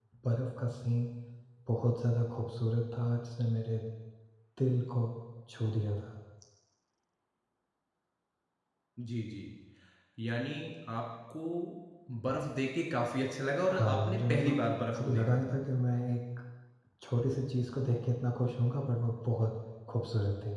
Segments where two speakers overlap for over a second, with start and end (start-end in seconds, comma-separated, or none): 13.7-15.6